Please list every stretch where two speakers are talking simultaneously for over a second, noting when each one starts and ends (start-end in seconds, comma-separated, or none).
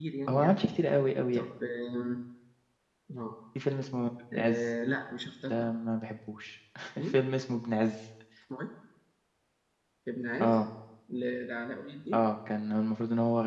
none